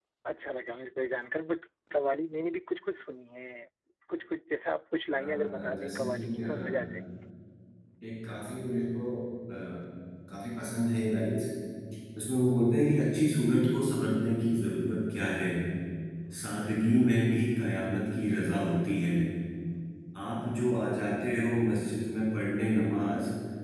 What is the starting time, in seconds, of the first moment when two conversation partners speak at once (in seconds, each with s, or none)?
5.2 s